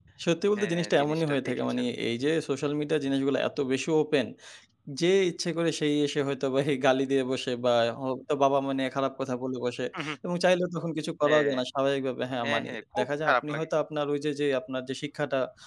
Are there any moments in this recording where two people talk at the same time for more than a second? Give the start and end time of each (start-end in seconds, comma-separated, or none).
0.6-1.8, 12.4-13.7